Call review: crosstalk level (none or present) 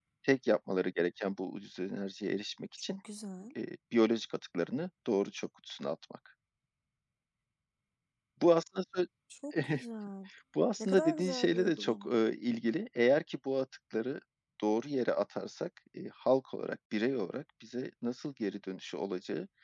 present